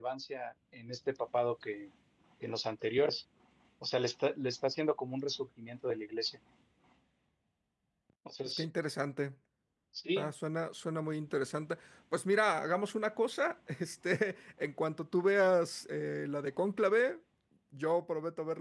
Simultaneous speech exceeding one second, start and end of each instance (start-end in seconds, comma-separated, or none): none